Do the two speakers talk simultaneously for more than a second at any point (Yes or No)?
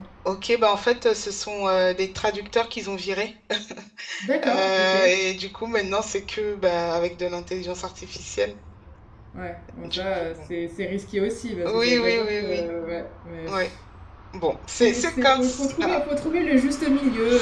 Yes